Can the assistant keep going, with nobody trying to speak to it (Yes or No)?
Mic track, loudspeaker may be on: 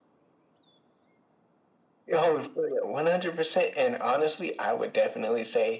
Yes